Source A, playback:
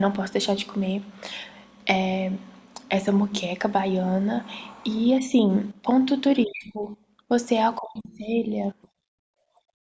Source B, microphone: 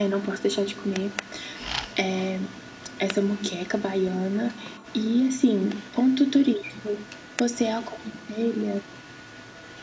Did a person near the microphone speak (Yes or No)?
No